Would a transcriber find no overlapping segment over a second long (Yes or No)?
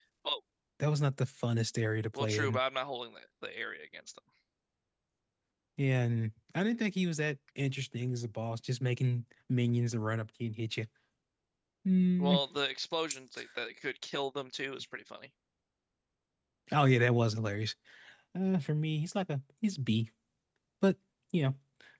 Yes